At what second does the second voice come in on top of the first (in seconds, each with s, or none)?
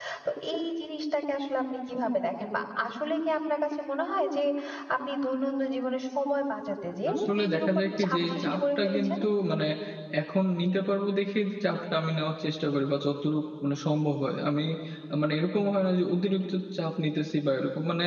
7.1 s